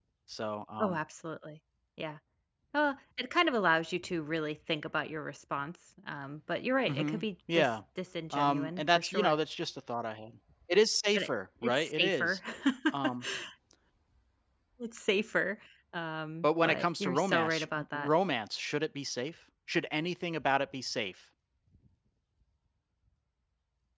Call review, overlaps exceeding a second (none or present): present